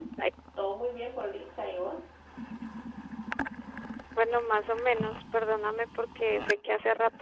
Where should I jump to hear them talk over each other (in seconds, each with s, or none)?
none